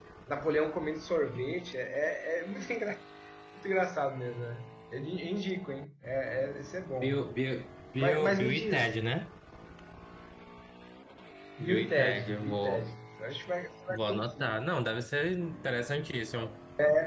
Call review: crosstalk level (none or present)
present